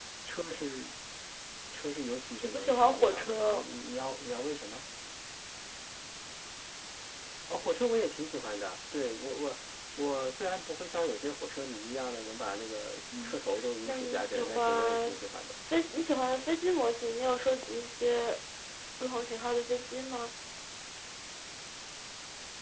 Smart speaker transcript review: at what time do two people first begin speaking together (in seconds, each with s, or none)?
2.4 s